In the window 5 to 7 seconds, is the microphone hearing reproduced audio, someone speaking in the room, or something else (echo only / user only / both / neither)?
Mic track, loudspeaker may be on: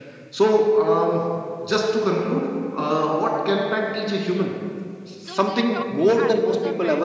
both